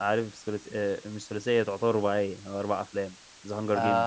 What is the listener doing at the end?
taking over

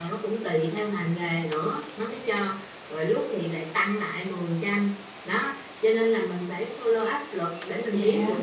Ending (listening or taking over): listening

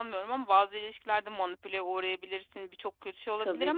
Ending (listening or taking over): listening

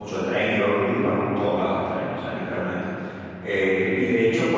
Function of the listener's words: listening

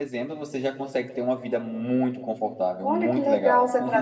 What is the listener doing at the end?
taking over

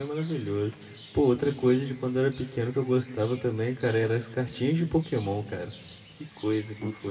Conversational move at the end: taking over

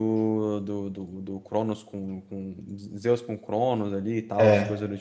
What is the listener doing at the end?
listening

